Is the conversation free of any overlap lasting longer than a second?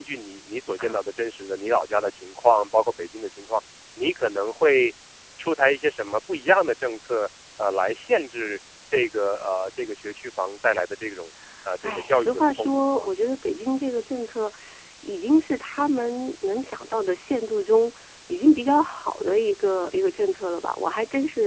No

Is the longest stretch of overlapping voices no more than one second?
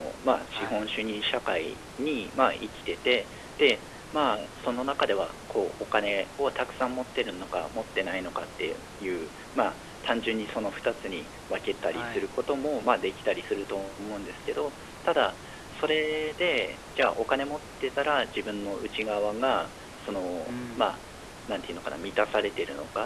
Yes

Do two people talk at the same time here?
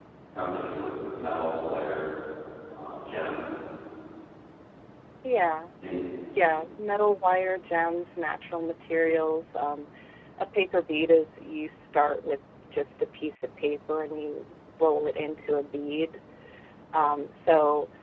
No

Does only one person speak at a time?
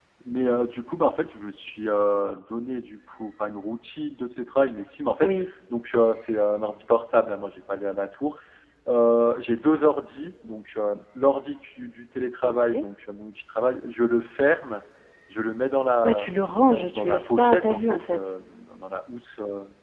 No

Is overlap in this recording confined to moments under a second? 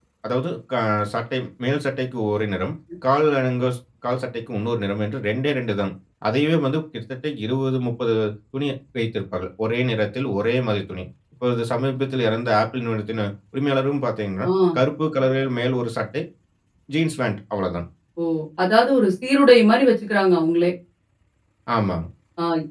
Yes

